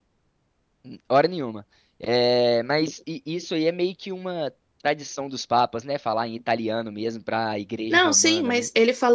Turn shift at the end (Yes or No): Yes